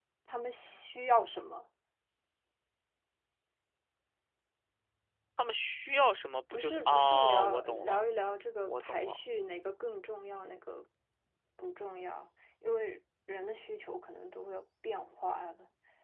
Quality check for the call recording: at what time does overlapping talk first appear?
6.5 s

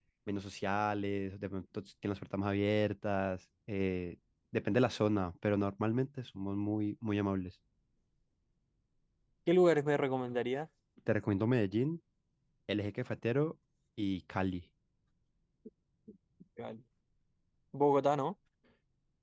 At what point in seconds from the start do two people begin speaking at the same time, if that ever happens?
none

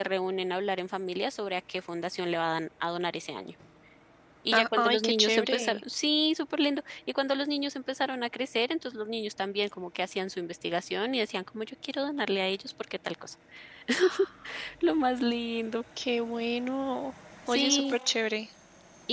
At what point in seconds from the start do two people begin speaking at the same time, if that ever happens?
4.5 s

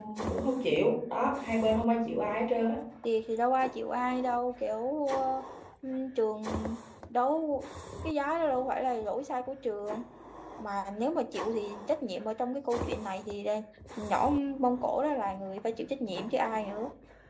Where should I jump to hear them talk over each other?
none

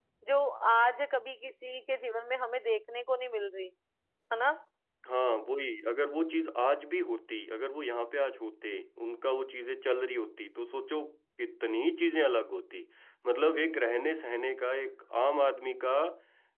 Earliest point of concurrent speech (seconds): none

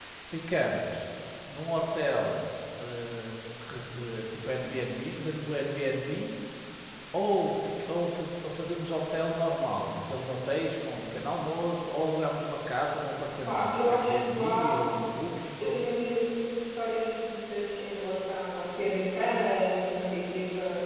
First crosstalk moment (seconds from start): 13.5 s

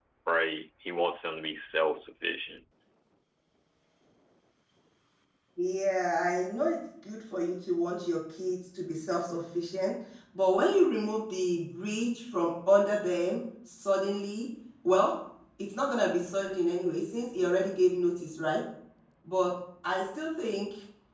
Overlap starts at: none

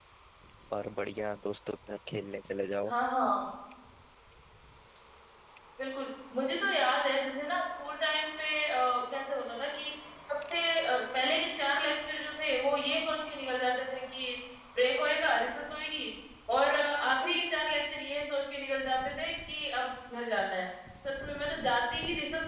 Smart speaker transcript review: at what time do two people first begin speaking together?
none

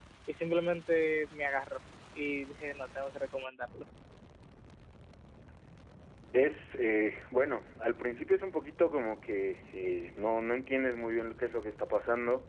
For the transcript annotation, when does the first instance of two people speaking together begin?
none

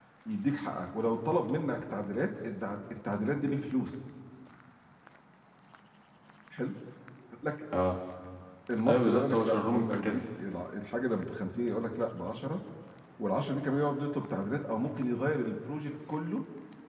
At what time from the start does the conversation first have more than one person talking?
8.9 s

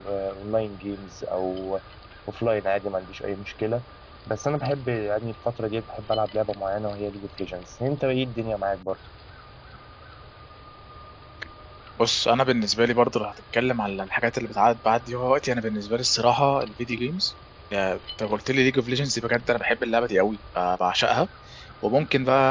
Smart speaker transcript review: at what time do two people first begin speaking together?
none

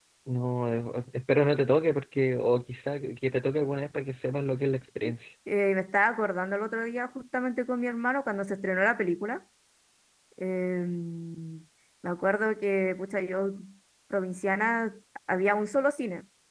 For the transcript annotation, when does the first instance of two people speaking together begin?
none

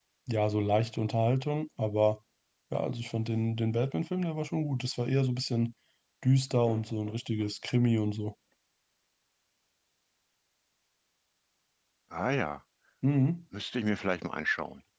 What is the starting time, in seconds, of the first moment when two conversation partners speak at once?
none

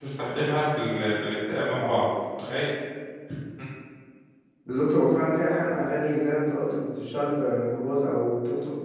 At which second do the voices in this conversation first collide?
none

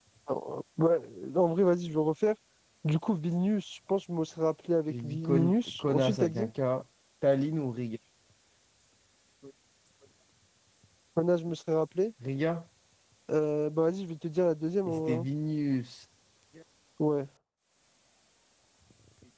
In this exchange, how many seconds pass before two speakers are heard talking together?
4.9 s

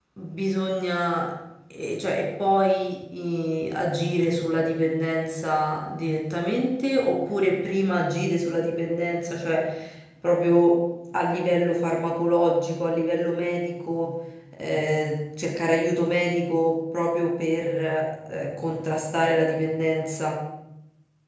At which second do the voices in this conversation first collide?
none

